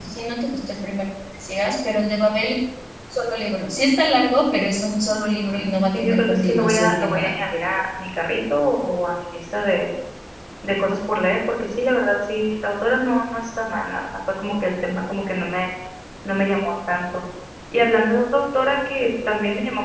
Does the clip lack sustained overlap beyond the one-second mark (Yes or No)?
No